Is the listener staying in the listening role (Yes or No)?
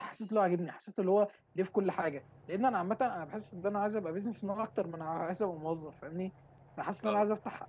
Yes